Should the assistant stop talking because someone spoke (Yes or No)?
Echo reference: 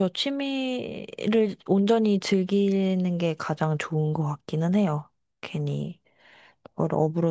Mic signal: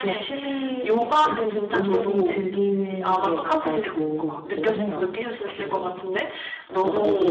Yes